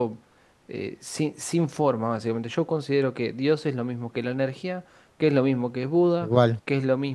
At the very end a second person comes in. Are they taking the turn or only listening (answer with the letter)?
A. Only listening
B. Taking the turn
A